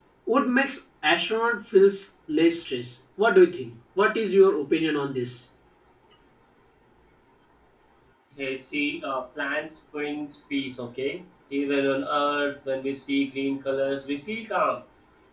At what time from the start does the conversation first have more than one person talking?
none

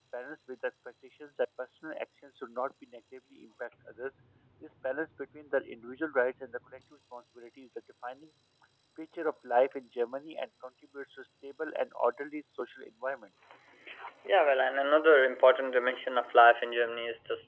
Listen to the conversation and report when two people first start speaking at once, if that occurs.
none

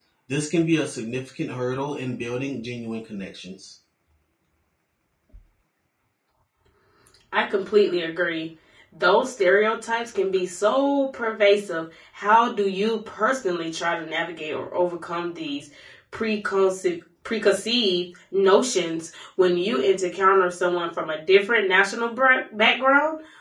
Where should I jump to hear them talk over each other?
none

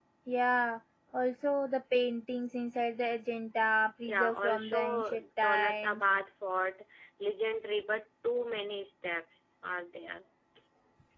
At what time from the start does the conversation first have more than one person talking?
4.0 s

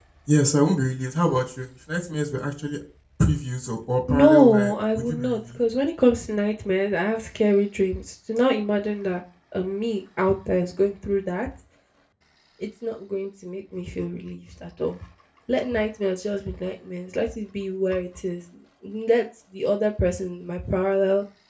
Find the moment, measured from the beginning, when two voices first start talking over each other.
4.1 s

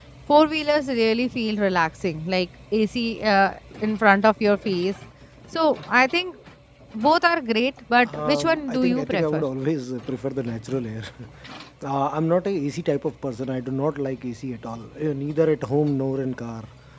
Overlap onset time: 8.0 s

